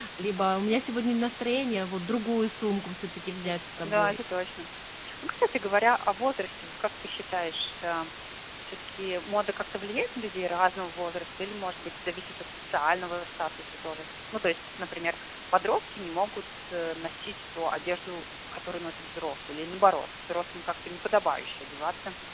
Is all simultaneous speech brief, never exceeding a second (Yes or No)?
Yes